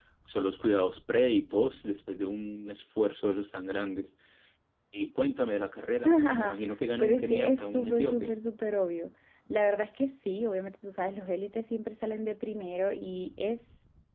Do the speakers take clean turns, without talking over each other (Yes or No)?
No